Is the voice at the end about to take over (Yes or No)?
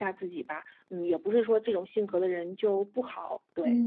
Yes